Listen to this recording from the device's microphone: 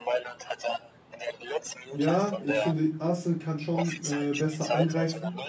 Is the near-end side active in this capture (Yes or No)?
Yes